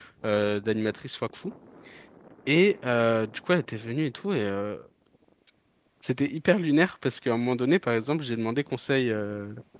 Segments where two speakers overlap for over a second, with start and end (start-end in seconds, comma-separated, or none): none